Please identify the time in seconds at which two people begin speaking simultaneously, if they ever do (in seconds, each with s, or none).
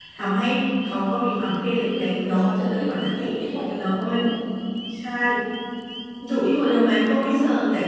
1.9 s